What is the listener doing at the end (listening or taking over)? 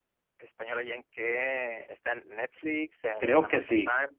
taking over